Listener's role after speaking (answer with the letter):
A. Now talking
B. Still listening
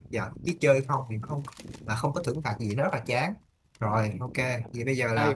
A